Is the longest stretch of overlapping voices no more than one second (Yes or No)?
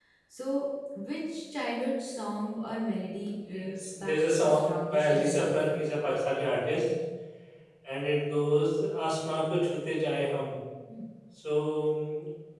No